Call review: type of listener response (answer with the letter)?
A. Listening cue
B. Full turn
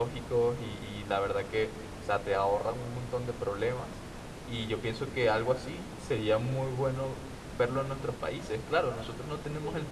A